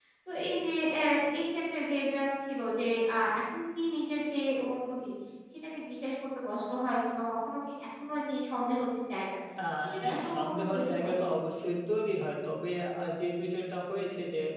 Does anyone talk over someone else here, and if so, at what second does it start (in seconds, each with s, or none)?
9.8 s